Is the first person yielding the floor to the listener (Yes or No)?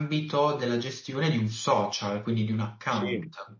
Yes